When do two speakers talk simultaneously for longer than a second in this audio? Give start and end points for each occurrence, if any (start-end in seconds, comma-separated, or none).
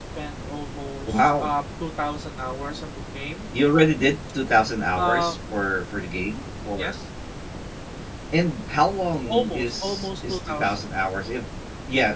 9.3-10.9